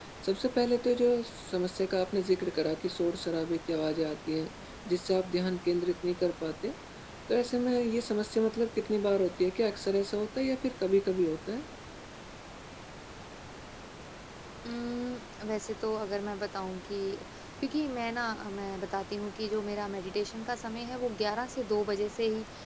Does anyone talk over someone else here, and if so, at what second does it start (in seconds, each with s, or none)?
none